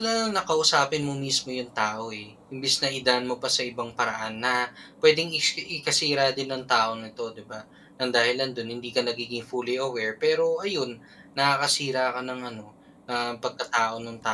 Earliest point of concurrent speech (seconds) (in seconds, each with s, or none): none